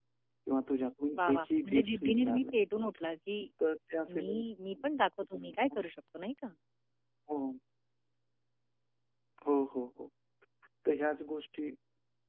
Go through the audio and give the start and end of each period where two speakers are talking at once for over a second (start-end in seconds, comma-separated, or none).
1.2-2.6